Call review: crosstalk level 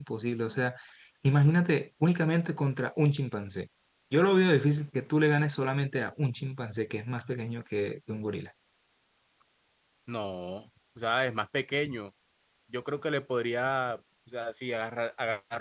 none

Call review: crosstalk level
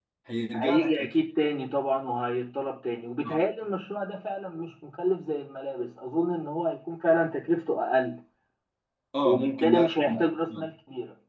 present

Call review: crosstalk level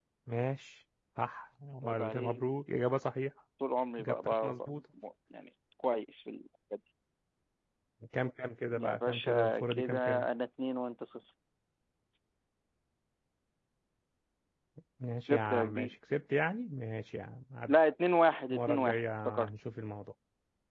present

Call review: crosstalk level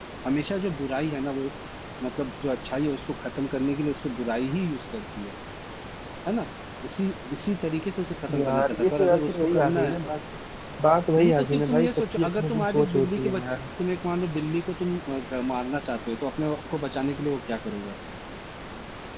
present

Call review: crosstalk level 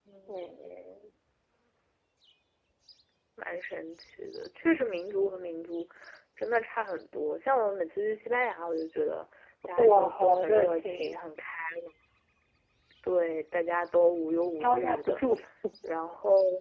present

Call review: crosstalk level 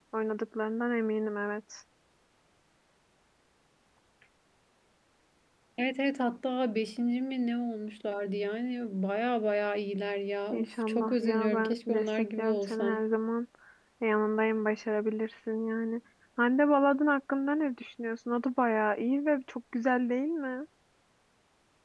present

